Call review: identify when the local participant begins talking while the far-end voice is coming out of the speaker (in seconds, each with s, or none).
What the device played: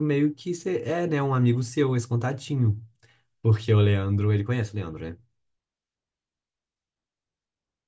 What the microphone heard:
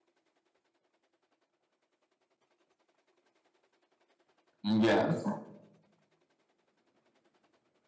4.6 s